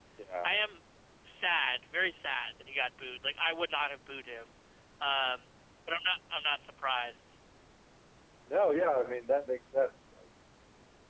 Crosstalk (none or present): none